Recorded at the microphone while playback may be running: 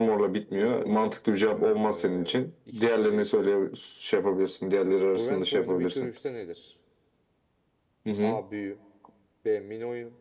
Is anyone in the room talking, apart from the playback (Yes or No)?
Yes